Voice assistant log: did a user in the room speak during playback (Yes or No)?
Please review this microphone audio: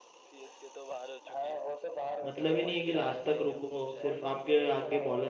Yes